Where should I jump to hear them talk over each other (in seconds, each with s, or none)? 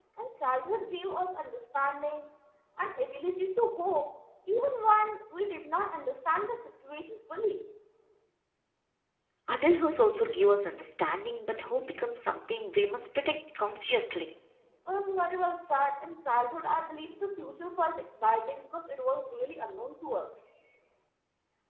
none